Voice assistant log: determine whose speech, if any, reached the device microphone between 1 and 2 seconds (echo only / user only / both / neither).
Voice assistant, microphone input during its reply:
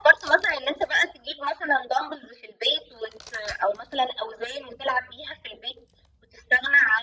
echo only